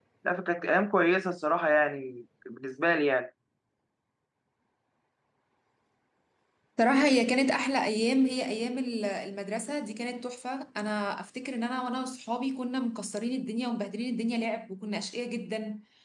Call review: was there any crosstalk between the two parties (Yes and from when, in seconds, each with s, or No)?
No